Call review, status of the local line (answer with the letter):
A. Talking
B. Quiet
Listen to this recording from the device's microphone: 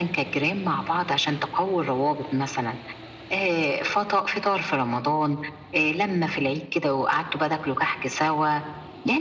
B